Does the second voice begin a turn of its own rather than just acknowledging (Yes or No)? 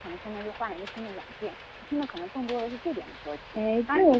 Yes